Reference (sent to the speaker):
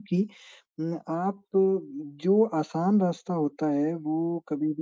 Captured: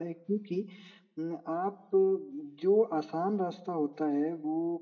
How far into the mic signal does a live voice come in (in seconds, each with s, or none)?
none